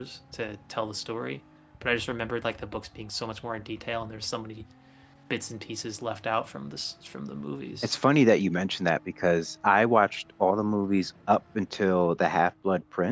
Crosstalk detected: No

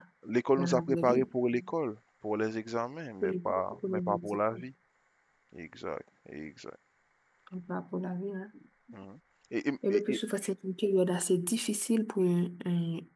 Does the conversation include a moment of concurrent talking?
Yes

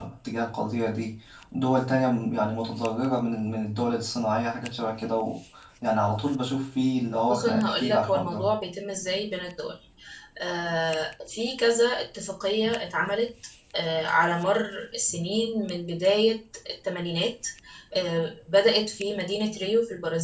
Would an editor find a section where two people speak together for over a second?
Yes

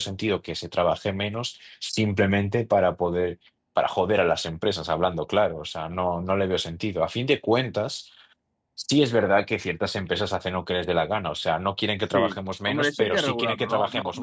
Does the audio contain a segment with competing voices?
Yes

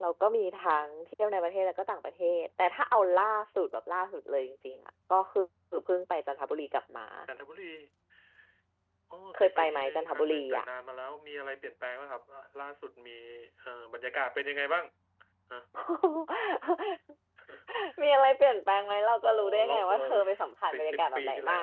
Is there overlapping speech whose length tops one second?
Yes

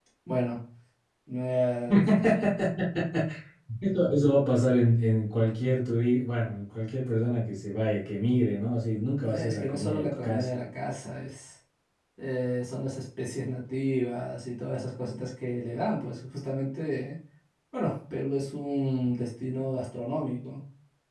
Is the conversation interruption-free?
No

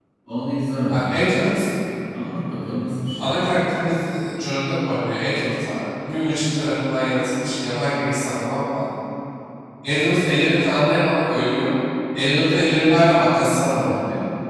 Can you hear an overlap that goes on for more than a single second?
No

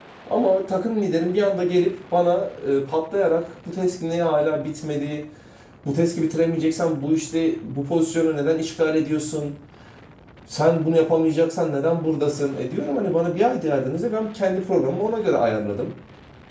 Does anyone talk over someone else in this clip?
No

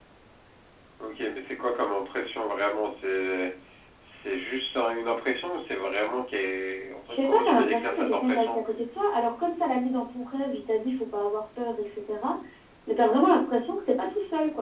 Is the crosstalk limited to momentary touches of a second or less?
No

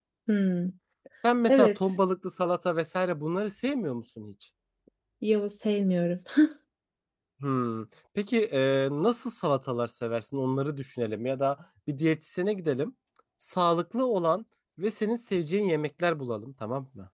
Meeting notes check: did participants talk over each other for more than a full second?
No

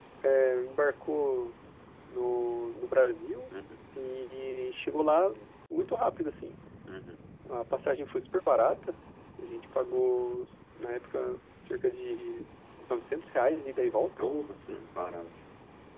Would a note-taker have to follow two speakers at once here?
No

